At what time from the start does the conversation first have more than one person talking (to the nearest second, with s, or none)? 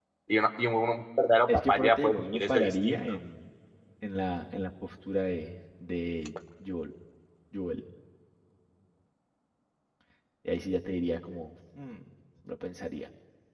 1 s